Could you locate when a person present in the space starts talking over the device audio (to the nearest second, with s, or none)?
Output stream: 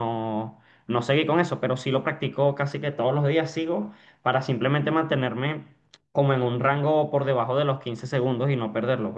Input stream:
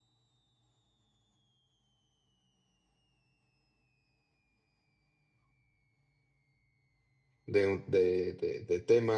7 s